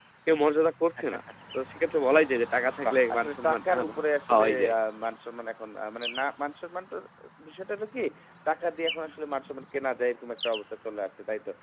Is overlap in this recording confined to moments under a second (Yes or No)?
No